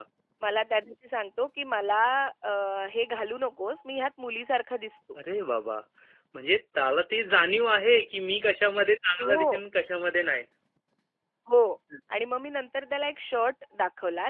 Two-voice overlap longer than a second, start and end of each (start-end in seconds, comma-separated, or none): none